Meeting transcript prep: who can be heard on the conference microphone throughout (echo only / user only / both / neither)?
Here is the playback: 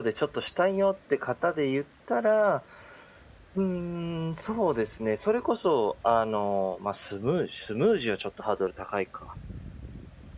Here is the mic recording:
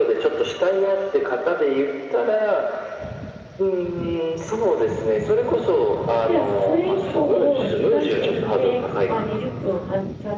both